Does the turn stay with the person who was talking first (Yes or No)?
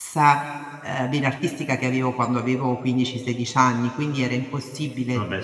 Yes